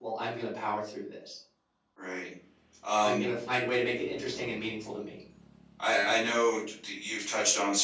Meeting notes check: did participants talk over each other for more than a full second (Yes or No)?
No